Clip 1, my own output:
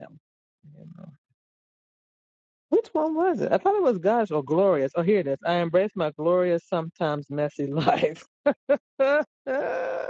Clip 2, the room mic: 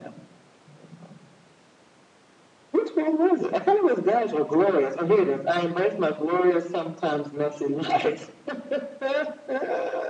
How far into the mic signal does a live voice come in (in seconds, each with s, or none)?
none